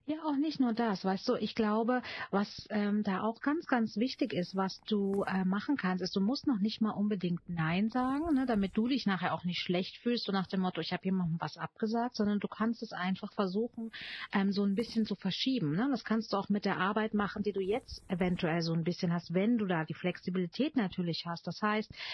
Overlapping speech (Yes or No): No